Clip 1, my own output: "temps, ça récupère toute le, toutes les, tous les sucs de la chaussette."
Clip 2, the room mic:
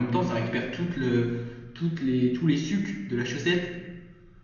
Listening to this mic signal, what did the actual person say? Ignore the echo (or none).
none